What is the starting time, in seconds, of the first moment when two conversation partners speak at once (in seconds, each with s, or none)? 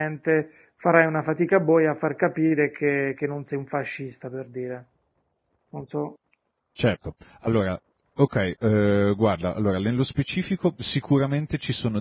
none